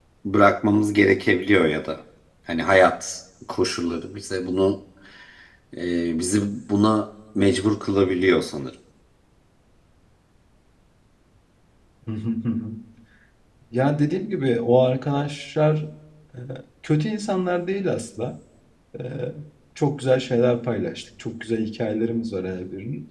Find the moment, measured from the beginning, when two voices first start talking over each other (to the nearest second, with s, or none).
none